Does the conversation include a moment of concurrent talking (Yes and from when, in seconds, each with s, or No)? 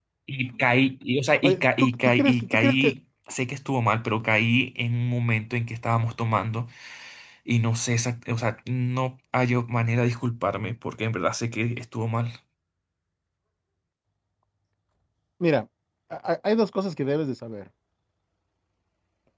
Yes, from 1.4 s